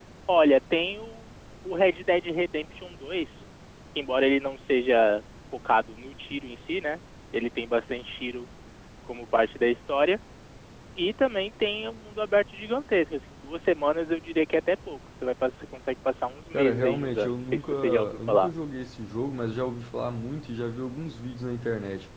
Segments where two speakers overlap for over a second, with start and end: 16.5-18.5

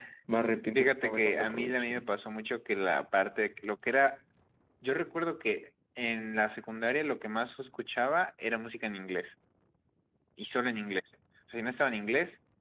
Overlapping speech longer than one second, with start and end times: 0.7-2.0

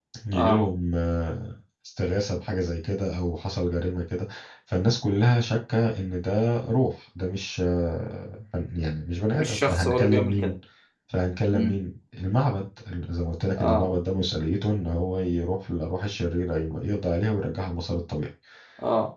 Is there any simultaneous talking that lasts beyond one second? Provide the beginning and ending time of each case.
9.3-10.5

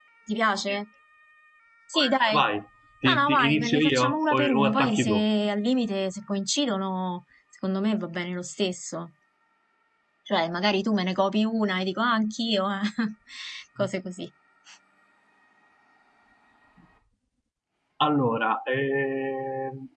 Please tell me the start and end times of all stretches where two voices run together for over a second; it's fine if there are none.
3.0-5.2

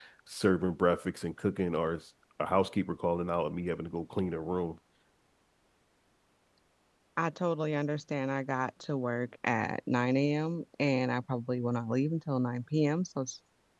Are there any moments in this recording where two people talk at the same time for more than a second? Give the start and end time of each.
none

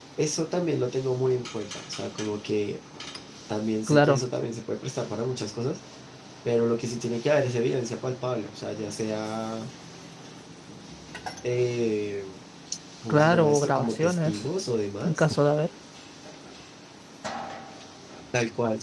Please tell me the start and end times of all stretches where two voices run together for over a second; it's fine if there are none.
13.1-14.4

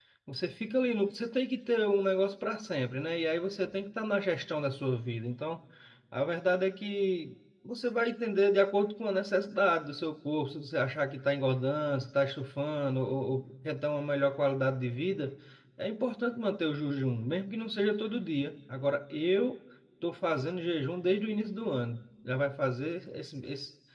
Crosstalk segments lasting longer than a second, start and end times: none

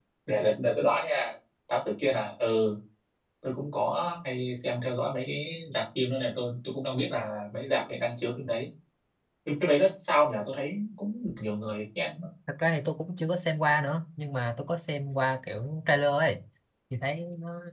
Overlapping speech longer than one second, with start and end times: none

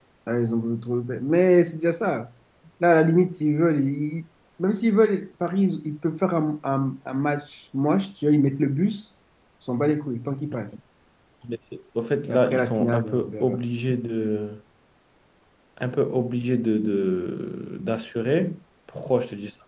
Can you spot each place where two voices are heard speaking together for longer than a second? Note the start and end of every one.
12.3-13.6

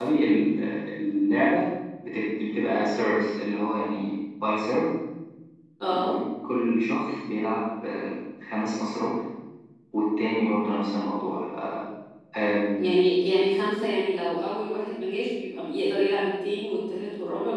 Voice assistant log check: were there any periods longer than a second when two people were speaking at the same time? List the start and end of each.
none

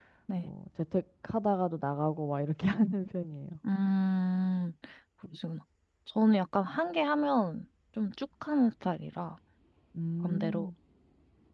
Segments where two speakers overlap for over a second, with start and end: none

